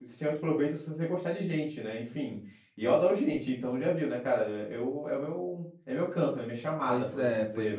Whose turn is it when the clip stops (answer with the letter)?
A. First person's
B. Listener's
B